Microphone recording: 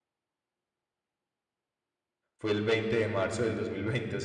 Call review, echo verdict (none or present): none